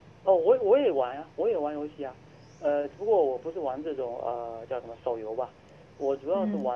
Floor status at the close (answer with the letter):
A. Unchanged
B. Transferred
A